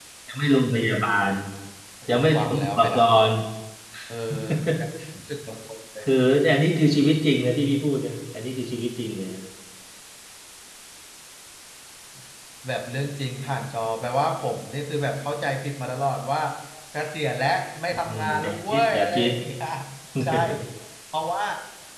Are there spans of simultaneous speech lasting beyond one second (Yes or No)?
Yes